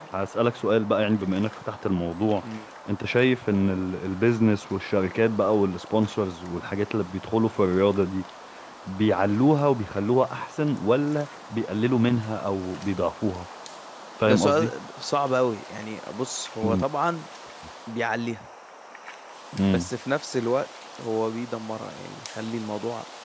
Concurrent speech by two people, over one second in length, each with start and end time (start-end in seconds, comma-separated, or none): none